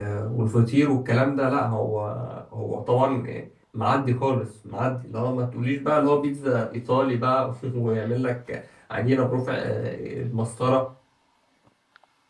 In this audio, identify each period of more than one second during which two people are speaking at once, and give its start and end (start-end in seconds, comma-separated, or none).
none